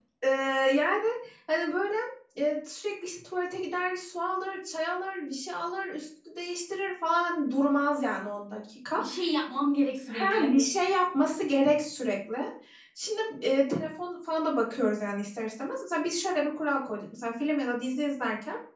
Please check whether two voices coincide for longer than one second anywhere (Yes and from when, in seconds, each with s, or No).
No